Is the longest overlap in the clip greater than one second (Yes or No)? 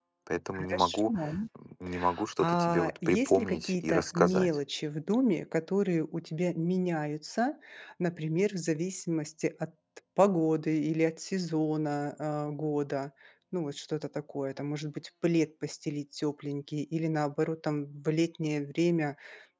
Yes